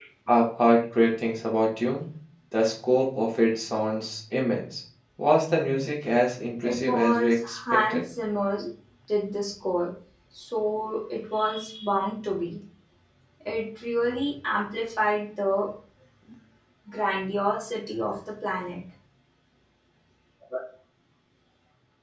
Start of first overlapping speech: 7 s

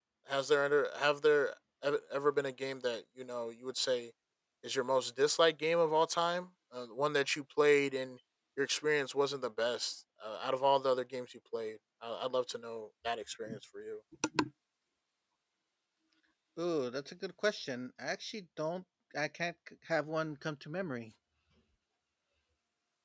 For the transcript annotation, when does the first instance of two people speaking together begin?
none

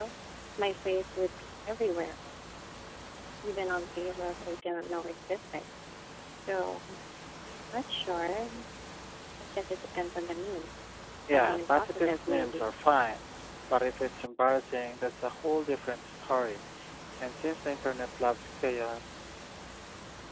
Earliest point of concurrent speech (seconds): 11 s

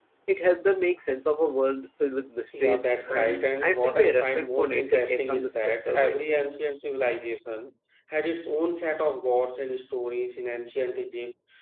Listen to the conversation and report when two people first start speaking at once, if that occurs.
3 s

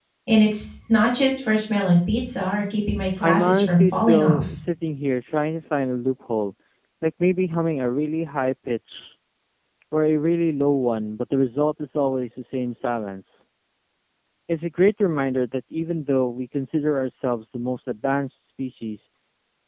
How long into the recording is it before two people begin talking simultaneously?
3 s

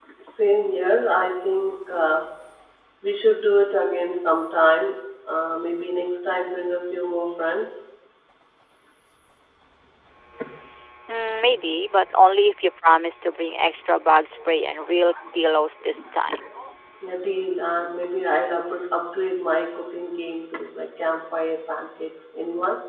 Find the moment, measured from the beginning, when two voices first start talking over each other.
none

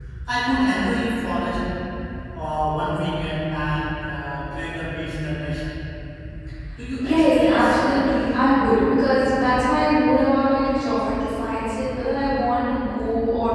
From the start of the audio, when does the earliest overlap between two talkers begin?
7 s

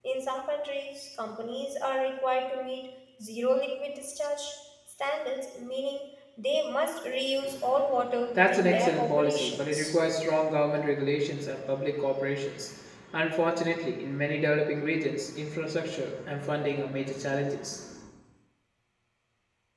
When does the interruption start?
8 s

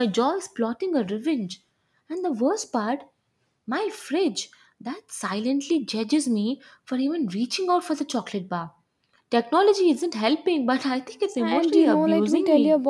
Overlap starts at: 11 s

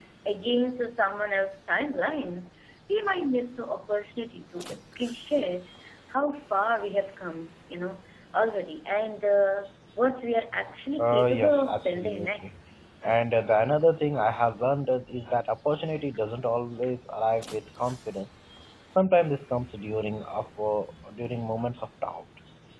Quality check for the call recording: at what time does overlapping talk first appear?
11 s

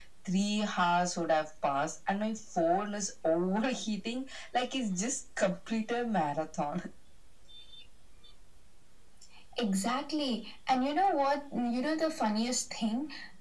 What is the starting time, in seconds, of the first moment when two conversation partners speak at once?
none

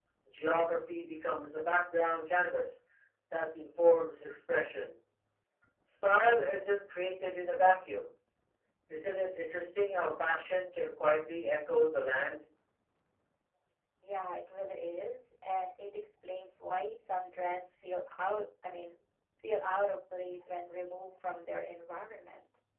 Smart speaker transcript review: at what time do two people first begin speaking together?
none

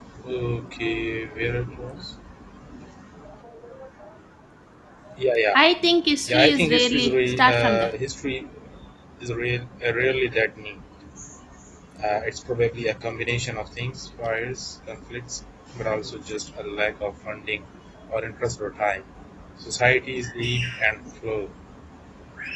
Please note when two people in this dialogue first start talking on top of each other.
6 s

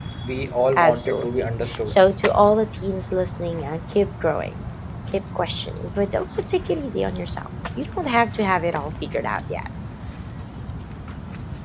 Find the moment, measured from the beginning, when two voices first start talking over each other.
1 s

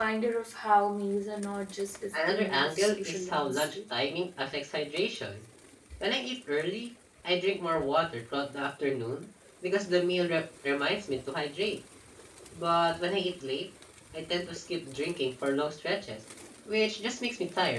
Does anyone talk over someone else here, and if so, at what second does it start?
2 s

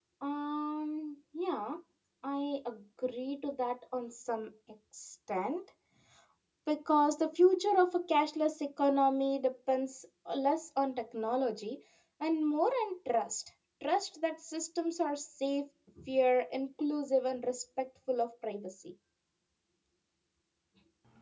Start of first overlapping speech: none

